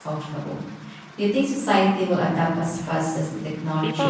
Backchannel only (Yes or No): No